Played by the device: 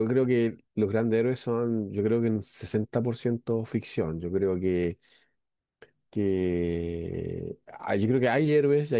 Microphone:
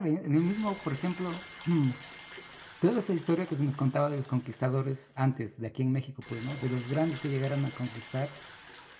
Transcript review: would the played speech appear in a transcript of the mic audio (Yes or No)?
No